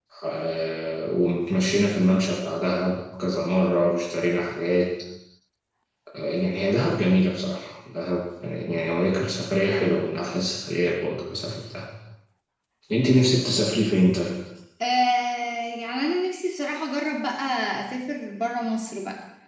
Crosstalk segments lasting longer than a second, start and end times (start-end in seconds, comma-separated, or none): none